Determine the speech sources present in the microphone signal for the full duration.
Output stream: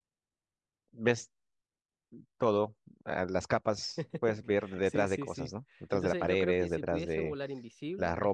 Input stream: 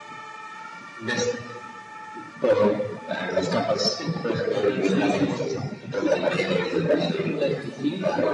both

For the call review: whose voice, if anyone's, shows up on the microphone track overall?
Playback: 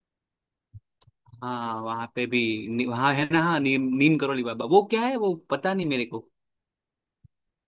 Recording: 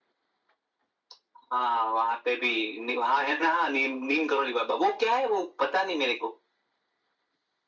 echo only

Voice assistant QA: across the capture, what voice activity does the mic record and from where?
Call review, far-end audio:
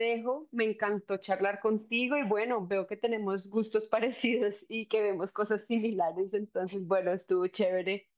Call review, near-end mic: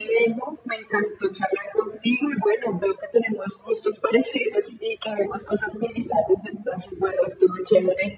echo only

